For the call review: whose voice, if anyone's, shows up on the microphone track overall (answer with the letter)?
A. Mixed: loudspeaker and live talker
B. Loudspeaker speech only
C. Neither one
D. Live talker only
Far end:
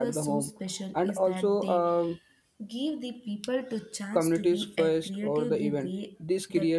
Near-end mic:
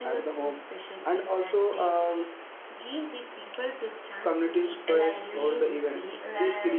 A